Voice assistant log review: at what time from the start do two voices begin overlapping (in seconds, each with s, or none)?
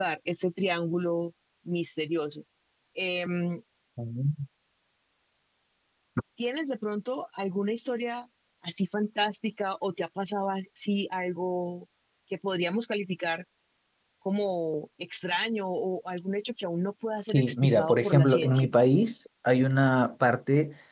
17.3 s